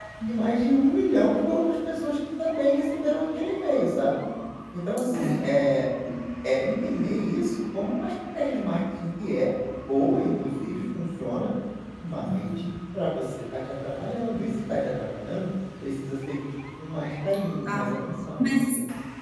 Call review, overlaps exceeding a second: none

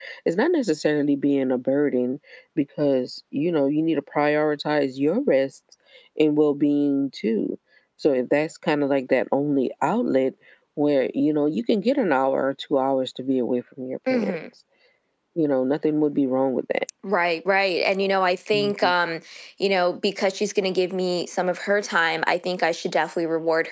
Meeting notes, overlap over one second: none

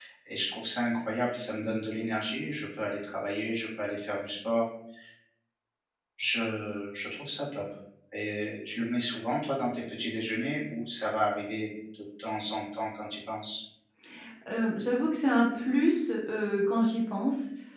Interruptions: none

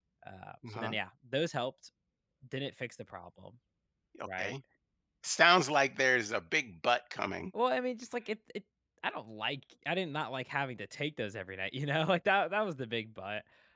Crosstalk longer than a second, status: none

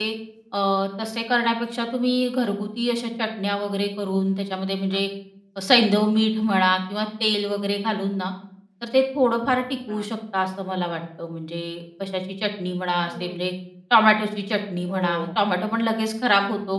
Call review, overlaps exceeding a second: none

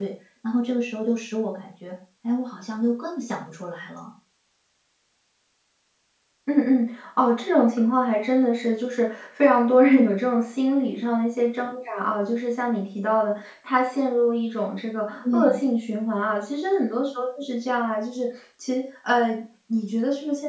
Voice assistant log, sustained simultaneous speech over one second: none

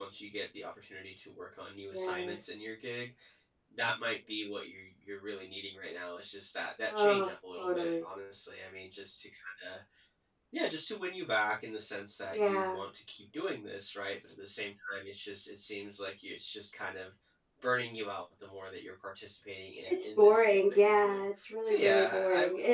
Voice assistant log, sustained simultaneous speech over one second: present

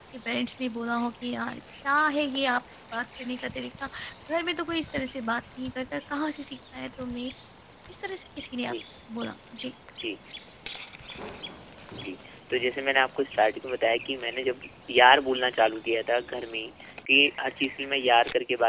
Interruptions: none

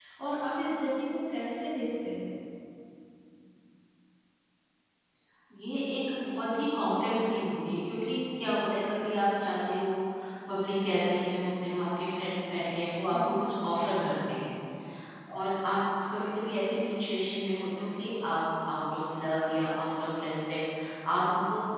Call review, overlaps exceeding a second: none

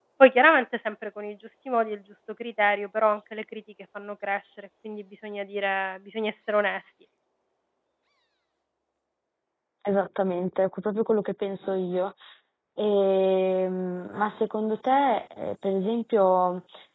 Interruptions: none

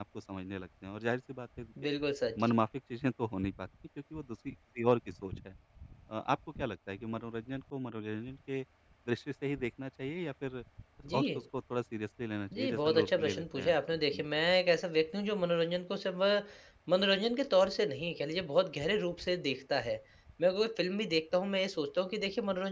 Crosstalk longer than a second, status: present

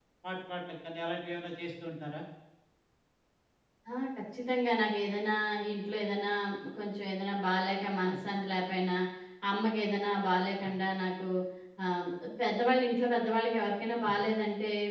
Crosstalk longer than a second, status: none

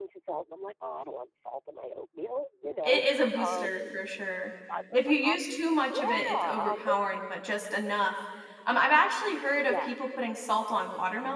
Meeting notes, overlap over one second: present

